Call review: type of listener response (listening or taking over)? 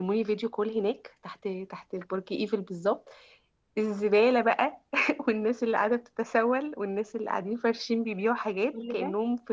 listening